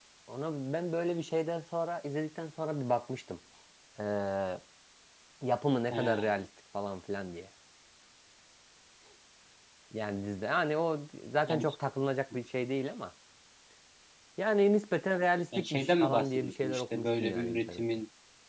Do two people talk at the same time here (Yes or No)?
Yes